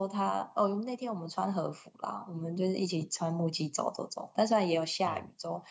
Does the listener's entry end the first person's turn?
No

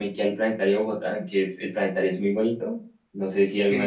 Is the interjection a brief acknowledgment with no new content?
No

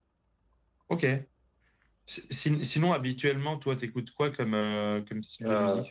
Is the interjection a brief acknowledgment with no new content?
No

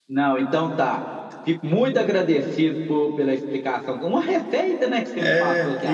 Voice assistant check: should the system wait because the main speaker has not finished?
No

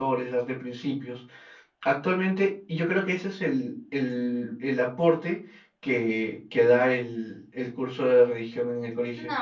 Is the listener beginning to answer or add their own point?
Yes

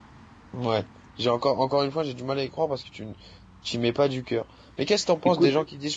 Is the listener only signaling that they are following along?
Yes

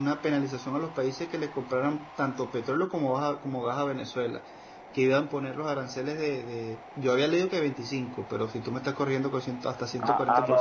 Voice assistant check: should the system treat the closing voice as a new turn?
Yes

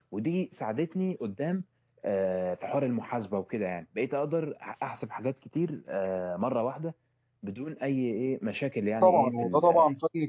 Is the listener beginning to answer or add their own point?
Yes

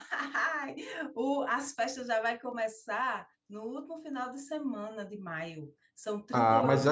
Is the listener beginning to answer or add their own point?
Yes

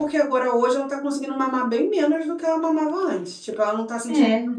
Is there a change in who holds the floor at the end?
No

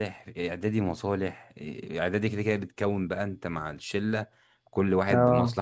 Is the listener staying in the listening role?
Yes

